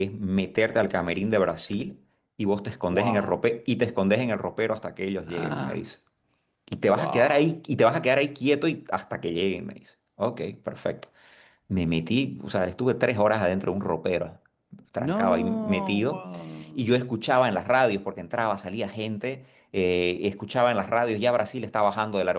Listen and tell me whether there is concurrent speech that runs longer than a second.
Yes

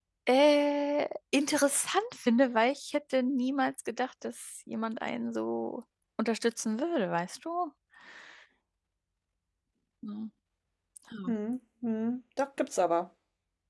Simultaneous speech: No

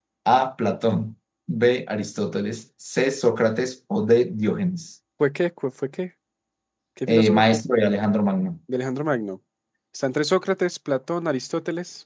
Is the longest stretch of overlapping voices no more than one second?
Yes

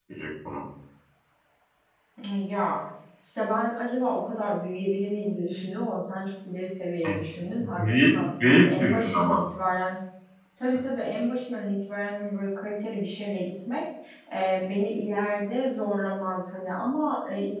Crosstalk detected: Yes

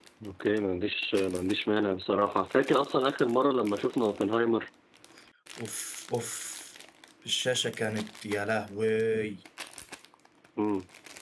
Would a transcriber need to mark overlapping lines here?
No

